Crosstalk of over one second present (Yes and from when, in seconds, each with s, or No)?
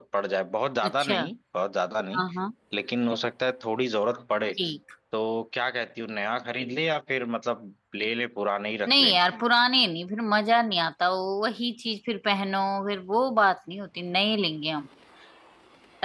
No